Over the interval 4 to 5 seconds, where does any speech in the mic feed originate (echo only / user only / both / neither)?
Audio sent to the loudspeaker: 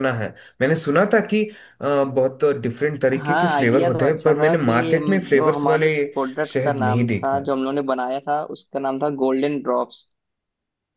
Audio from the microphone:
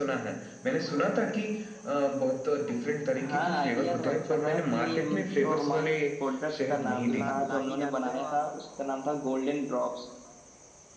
echo only